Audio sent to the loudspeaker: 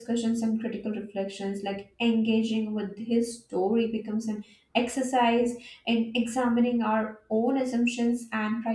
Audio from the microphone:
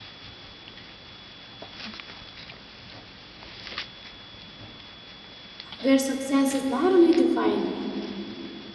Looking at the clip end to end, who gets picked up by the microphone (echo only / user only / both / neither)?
user only